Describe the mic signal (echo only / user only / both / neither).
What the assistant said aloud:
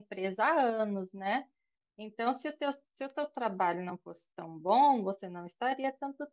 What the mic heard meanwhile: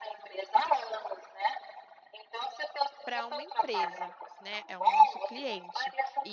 both